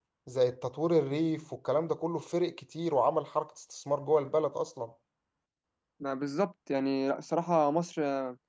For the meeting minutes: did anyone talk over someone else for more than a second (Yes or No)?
No